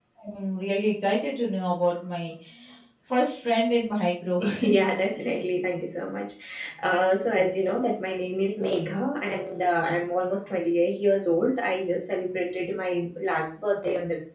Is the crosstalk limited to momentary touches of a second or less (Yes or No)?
Yes